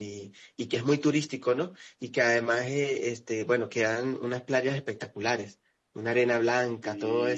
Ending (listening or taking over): listening